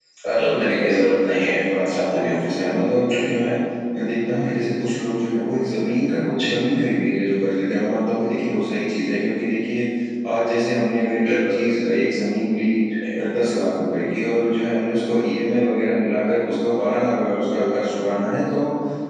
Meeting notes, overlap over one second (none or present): present